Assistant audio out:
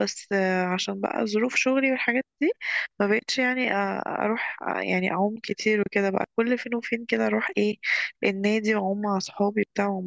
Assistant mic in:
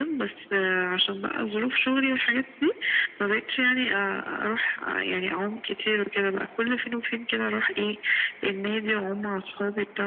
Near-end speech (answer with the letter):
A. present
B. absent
B